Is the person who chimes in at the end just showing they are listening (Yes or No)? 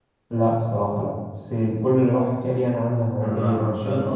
No